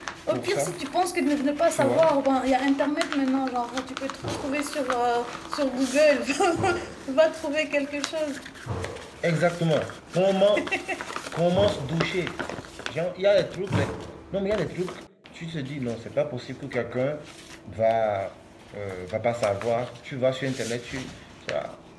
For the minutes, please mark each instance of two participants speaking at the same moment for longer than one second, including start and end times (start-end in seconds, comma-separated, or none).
none